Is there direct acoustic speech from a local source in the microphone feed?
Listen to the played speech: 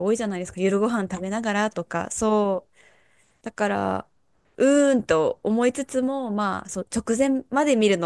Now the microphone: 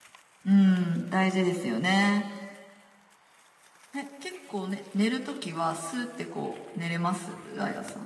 Yes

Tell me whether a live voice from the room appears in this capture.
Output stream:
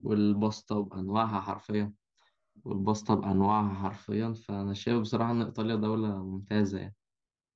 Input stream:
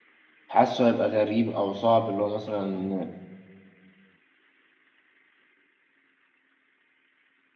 Yes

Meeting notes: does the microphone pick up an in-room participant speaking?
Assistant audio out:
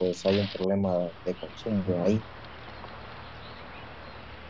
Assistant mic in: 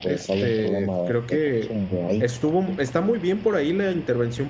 Yes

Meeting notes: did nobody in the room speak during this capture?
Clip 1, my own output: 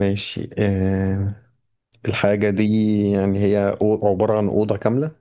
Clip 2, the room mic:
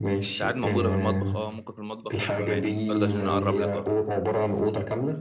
No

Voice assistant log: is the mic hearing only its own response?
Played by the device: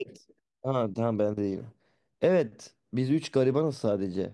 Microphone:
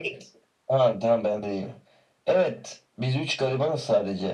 Yes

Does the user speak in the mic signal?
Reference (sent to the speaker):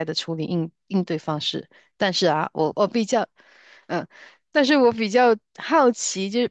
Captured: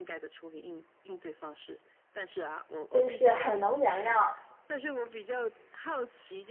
Yes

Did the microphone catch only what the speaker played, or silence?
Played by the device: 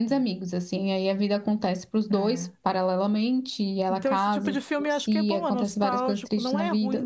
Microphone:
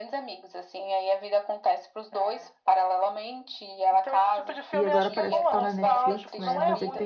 No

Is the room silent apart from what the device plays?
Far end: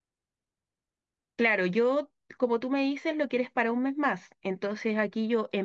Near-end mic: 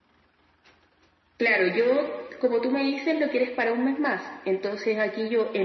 Yes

